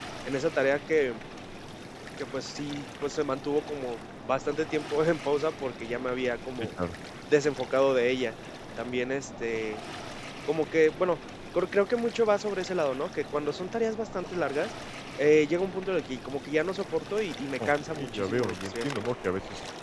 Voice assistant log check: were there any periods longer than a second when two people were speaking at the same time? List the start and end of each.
17.6-19.1

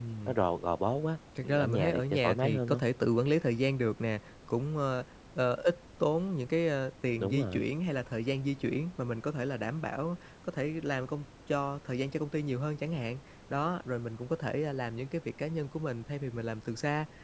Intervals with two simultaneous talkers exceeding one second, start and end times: 1.6-2.8

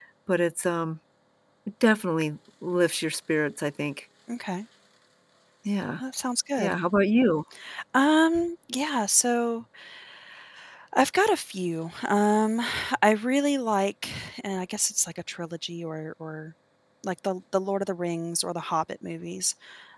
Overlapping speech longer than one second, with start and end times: none

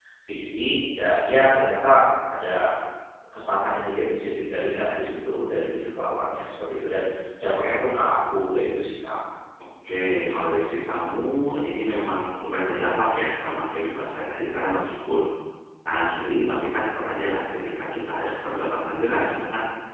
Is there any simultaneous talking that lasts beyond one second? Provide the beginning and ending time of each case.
none

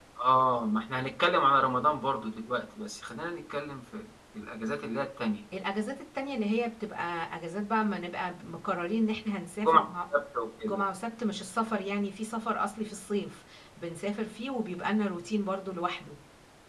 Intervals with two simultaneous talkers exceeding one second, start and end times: none

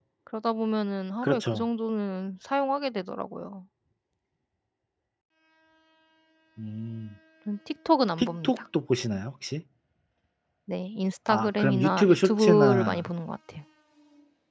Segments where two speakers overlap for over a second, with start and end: 11.3-13.1

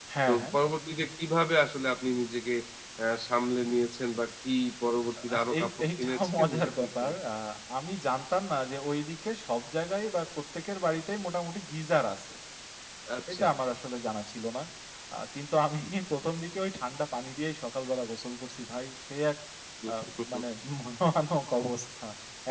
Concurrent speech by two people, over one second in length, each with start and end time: 5.2-7.1

